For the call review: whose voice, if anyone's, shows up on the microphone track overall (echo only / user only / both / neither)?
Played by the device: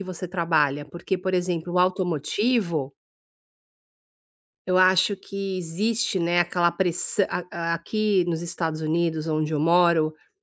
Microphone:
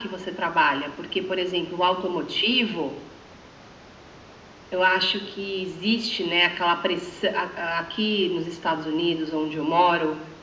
echo only